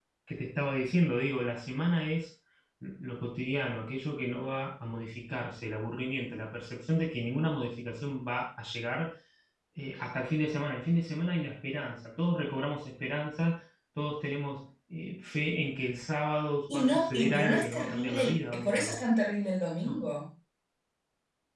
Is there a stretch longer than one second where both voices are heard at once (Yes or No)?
Yes